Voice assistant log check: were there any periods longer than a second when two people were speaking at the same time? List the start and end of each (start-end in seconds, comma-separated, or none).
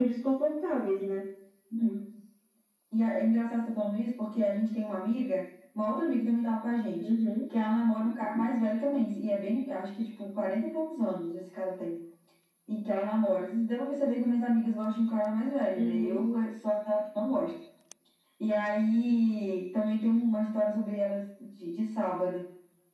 none